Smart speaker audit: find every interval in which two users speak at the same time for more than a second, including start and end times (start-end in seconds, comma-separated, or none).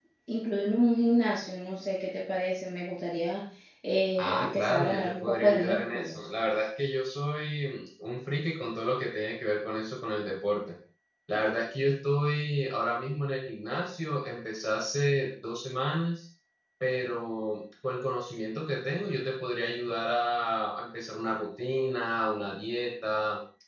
4.2-6.2